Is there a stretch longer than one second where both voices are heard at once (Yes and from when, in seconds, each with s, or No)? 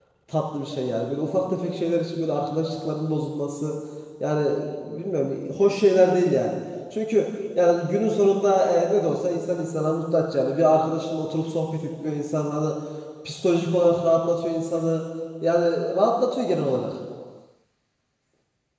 No